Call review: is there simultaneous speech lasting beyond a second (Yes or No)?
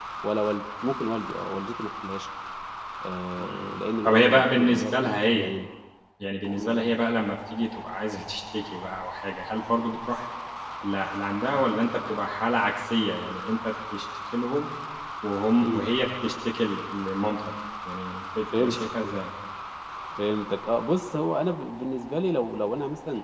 Yes